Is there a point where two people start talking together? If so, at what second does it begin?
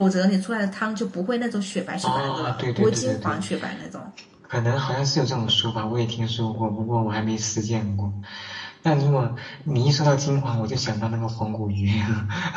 2 s

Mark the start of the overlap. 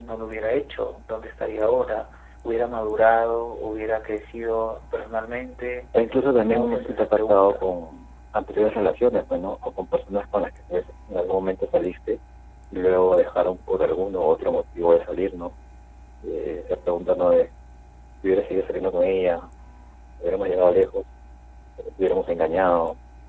6 s

